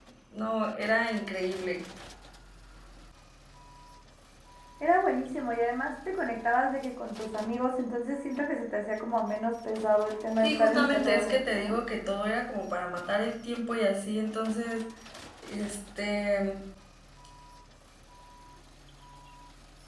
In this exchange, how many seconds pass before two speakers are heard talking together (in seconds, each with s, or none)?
10.4 s